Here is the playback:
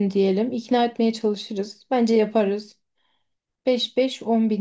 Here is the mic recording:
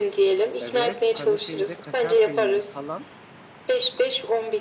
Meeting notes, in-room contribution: present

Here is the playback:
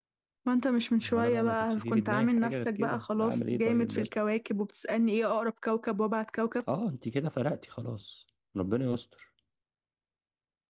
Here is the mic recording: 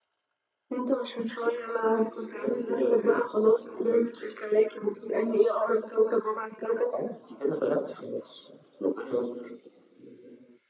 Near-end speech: none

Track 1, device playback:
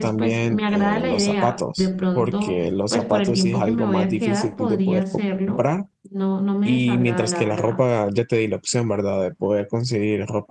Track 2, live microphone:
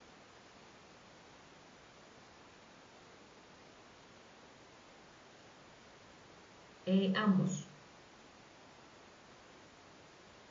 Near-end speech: present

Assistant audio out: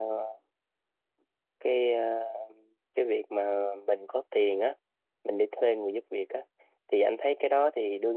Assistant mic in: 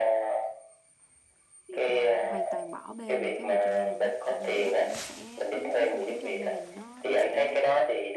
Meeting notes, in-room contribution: present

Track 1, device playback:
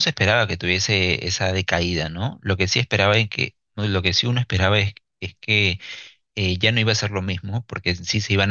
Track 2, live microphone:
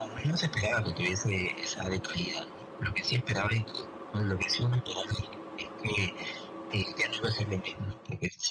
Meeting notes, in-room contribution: none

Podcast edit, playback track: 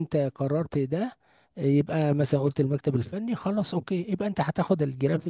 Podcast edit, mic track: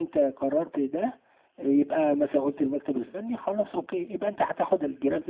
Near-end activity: none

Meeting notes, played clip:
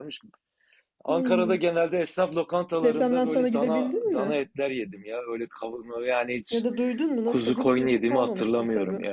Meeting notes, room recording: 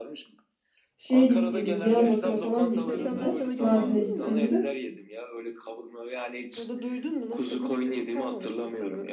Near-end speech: present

